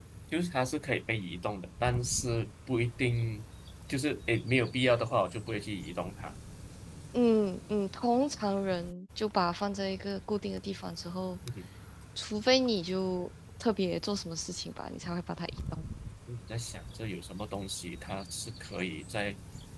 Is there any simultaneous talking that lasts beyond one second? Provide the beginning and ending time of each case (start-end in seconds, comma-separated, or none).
none